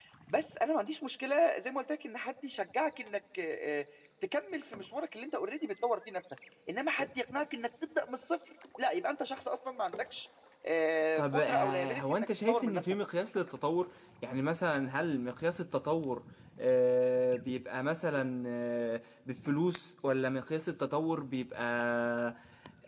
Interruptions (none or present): present